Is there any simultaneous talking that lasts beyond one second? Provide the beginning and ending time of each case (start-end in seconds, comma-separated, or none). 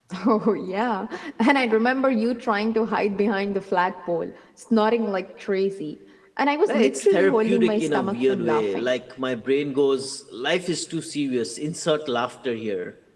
6.7-8.9